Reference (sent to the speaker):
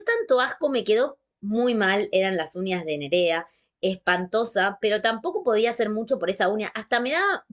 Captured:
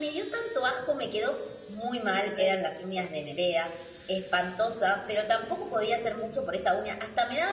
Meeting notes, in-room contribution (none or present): present